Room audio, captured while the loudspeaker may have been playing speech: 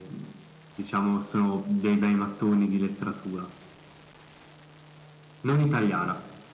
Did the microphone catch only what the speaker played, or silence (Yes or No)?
Yes